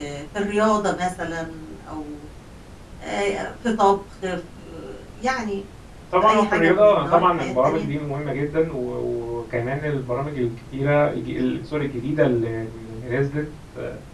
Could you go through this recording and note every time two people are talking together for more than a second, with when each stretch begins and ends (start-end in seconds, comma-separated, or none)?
6.2-7.9